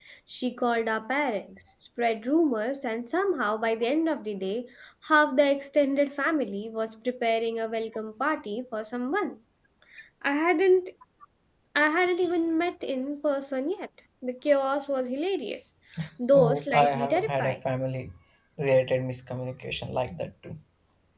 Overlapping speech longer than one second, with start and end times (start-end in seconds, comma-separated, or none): 16.3-17.6